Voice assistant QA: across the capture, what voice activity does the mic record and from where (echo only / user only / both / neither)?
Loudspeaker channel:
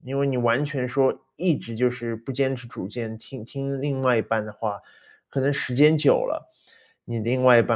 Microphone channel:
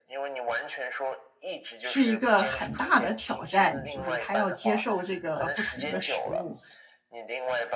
both